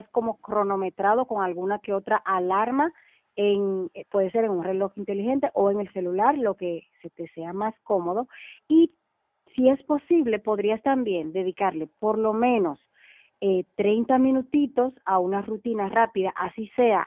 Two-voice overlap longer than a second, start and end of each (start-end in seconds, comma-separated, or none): none